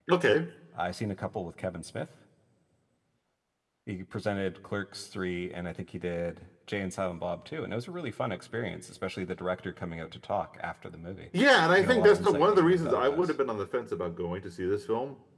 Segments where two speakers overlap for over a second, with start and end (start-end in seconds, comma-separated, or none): 11.8-13.3